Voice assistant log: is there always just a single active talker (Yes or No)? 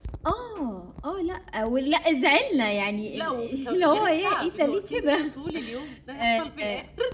No